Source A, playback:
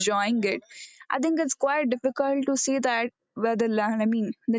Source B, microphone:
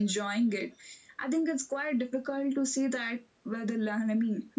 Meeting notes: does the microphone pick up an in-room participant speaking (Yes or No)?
No